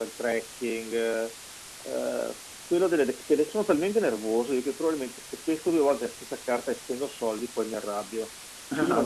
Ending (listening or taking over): listening